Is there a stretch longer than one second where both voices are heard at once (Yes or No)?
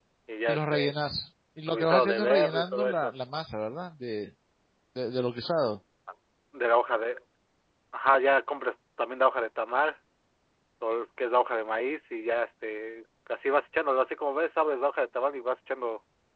Yes